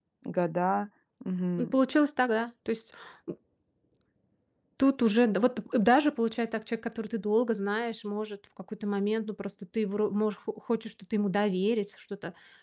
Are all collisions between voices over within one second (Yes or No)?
Yes